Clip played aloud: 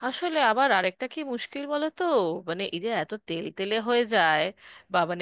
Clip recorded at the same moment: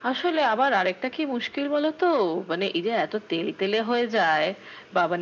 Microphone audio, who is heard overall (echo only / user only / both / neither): echo only